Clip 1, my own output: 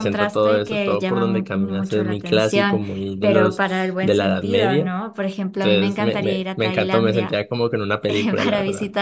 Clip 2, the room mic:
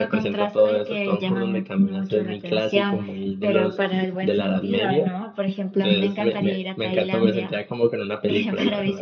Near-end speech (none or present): none